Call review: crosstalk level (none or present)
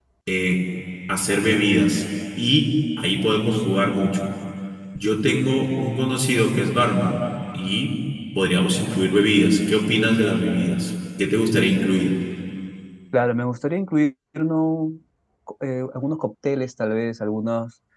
none